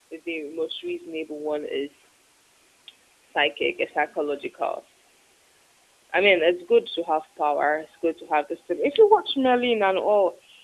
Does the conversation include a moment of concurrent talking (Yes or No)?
No